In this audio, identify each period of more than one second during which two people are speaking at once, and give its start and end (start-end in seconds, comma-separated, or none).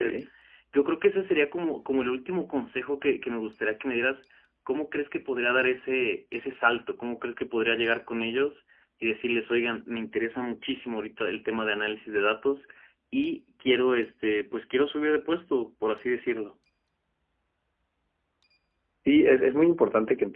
none